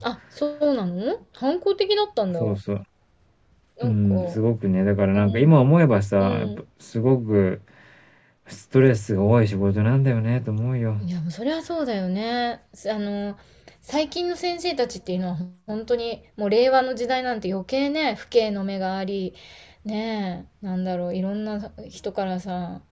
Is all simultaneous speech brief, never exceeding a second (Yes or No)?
Yes